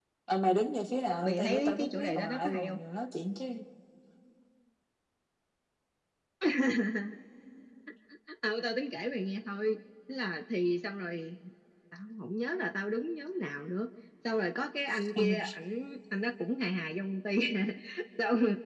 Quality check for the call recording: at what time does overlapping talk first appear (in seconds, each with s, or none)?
1.2 s